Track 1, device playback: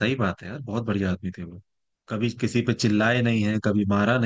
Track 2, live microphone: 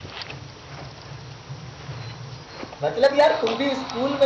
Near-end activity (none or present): present